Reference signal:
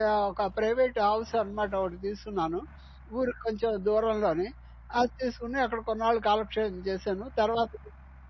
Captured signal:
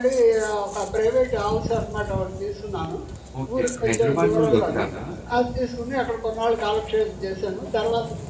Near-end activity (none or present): present